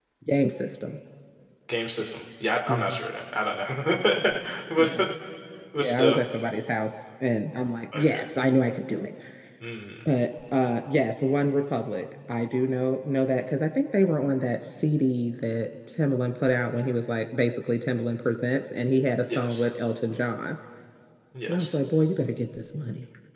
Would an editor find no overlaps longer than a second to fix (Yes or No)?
Yes